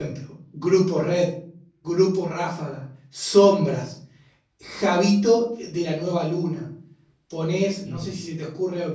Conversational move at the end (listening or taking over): listening